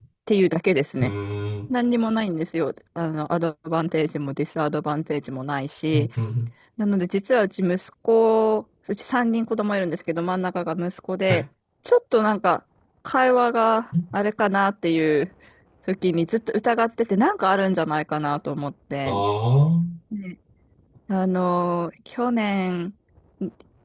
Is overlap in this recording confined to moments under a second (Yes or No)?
Yes